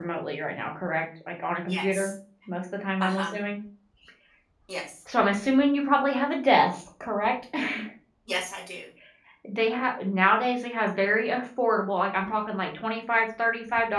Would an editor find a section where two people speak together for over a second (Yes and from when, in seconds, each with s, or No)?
No